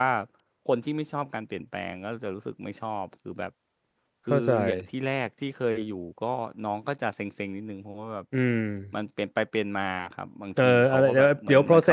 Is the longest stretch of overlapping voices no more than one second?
No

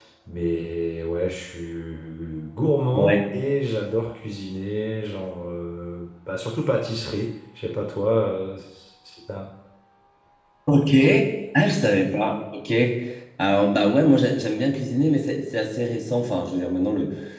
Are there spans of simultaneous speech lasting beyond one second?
No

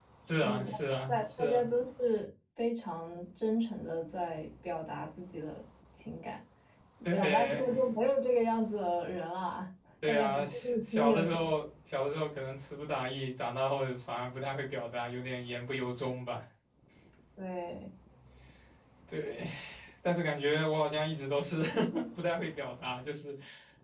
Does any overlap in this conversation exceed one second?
Yes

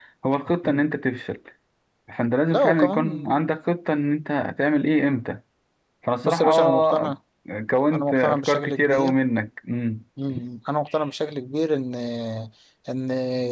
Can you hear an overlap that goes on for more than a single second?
Yes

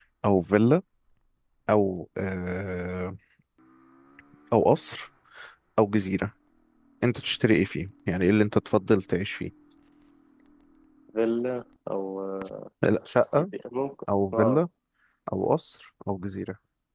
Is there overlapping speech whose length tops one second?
No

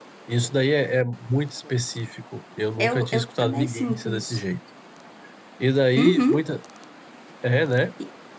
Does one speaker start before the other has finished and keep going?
Yes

